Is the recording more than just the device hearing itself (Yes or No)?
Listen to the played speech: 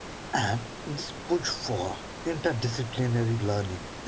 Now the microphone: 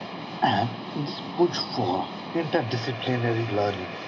No